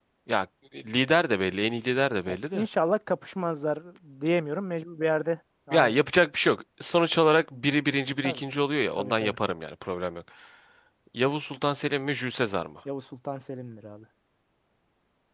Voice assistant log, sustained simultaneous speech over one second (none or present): none